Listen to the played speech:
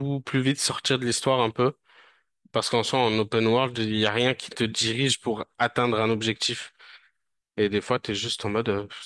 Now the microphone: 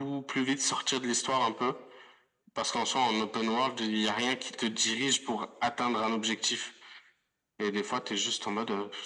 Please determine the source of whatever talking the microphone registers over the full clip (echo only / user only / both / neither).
echo only